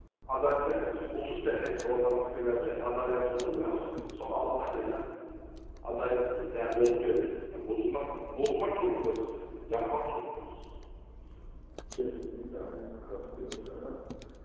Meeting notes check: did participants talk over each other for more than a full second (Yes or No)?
No